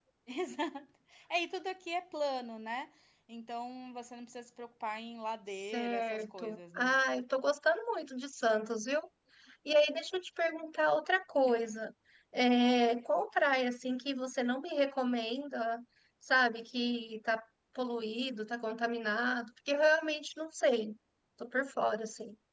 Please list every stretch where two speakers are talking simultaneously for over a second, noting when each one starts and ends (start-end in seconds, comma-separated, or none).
5.7-6.9